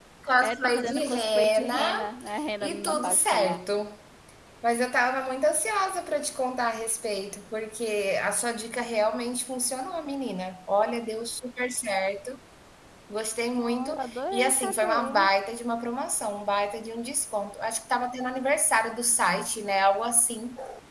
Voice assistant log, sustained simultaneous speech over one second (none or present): present